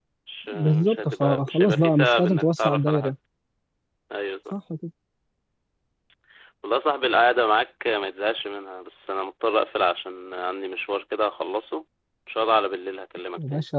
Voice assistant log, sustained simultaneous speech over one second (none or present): present